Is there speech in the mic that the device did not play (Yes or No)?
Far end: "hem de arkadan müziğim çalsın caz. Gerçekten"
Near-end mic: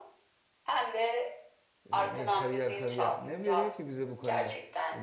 Yes